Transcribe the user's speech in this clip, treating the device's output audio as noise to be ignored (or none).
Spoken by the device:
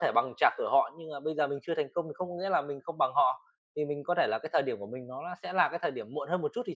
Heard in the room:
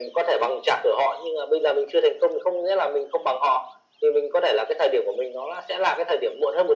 none